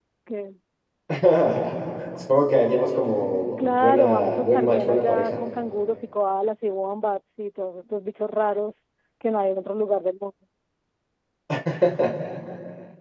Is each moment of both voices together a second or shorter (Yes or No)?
No